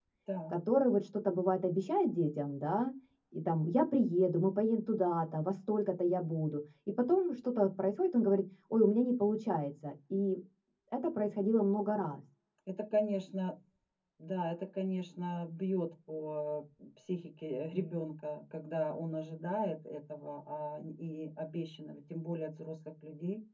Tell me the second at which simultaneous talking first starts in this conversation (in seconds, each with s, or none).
none